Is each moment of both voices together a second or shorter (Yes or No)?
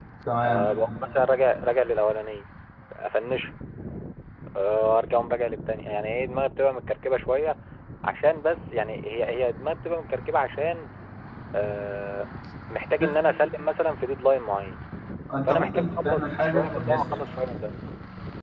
No